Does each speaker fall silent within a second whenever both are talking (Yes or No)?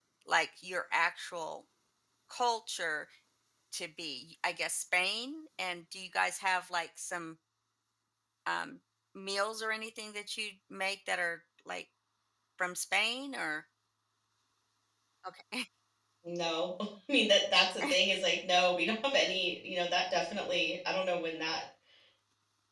Yes